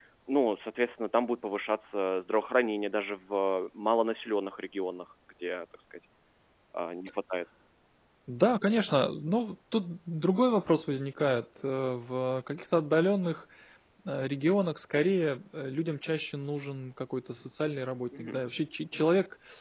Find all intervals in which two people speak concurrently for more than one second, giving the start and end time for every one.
none

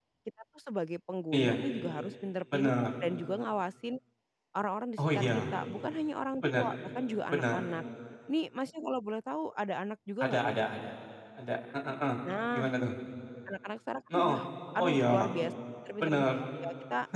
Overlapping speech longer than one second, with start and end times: none

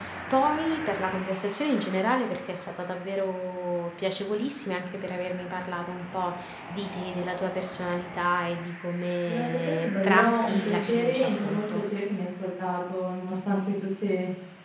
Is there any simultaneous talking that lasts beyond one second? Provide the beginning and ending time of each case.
9.3-11.8

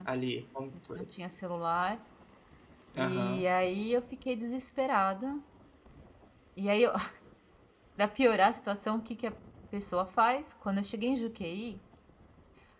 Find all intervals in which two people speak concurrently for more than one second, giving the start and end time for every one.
none

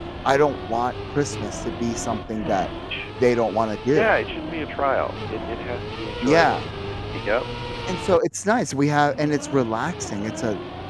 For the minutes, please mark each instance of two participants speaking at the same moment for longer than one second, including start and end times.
none

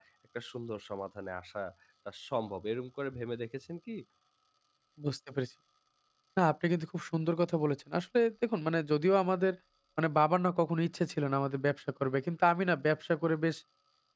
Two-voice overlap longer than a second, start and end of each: none

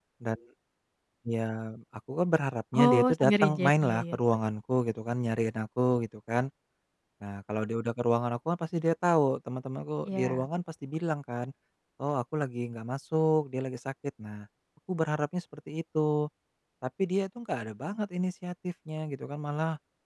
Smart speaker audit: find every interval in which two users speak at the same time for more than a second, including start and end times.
2.8-4.2

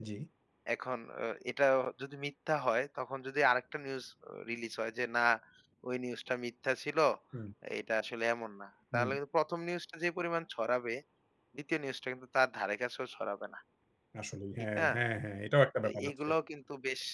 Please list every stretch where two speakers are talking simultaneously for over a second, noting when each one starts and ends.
none

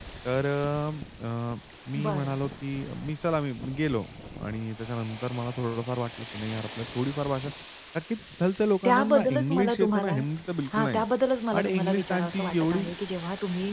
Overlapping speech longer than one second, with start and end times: 8.8-10.1, 11.6-12.8

